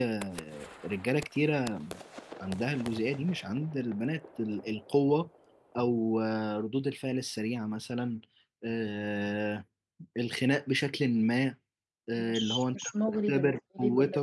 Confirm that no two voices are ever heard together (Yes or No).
No